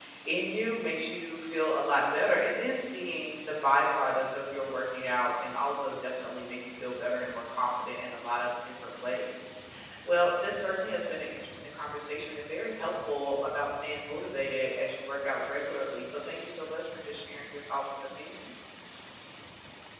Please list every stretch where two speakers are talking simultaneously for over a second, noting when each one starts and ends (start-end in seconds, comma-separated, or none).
none